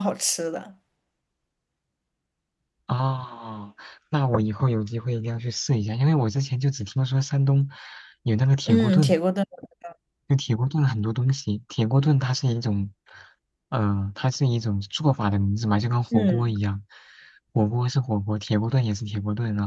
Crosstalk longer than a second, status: none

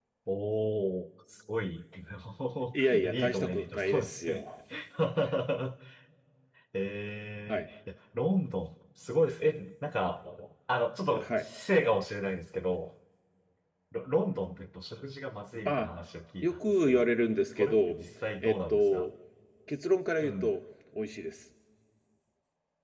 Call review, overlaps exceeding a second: present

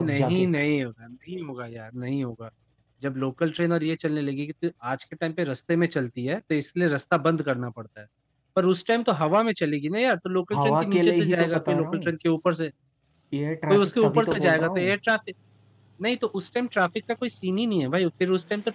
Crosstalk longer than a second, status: present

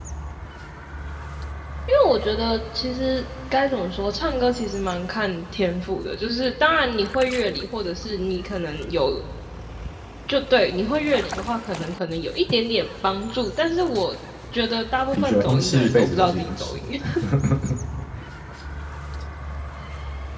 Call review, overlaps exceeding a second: present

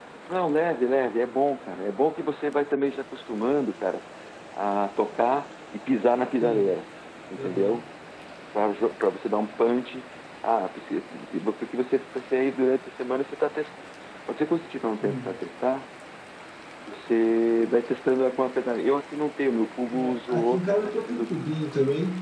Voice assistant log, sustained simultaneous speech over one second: present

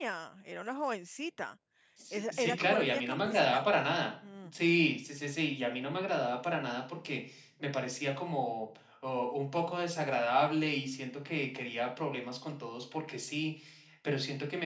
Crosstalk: present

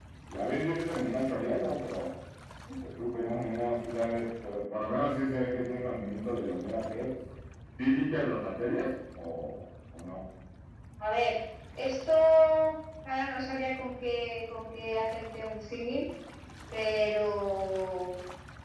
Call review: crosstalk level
none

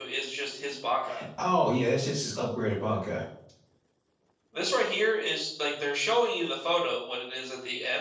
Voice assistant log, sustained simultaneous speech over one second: none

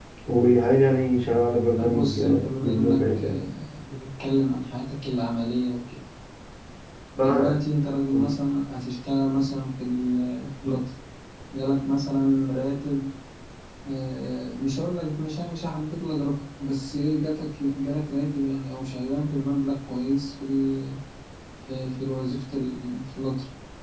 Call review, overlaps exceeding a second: present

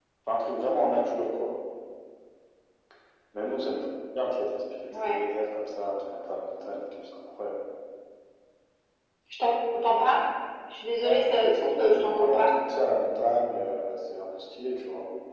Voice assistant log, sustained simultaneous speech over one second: present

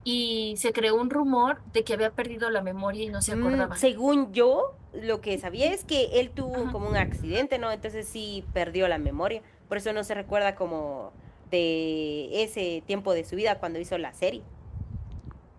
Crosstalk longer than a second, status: none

